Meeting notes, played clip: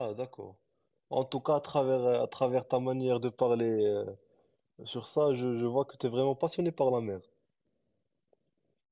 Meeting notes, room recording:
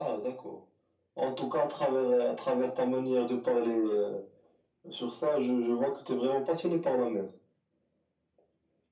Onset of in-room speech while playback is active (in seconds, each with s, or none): none